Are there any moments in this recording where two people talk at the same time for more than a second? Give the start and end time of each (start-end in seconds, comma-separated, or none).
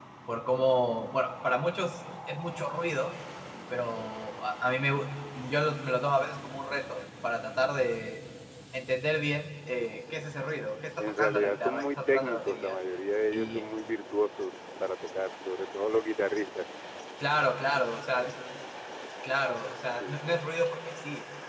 11.0-12.8